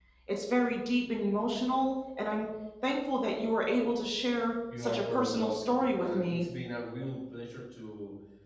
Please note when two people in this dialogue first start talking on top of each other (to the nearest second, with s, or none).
5 s